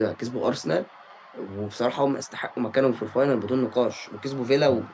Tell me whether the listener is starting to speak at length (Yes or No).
Yes